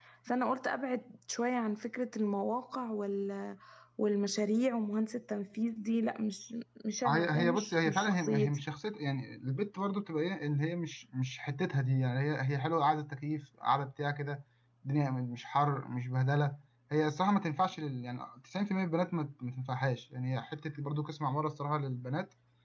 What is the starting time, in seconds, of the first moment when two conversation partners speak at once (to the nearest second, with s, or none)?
7 s